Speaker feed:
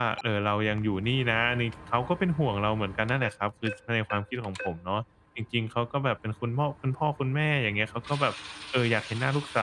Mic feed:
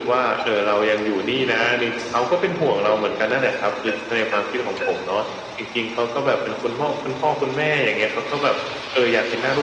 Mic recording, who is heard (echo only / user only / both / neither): echo only